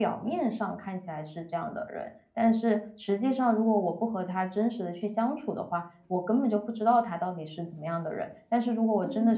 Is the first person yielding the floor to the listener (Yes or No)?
No